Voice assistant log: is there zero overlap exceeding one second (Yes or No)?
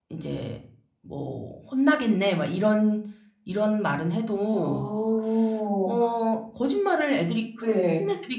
Yes